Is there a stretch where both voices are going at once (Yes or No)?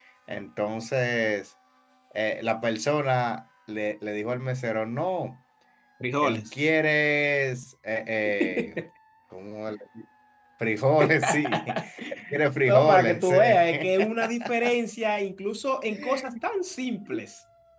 Yes